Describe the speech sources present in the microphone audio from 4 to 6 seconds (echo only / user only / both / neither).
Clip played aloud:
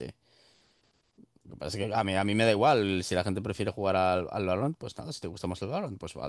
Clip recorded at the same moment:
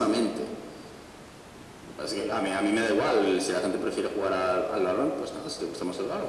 echo only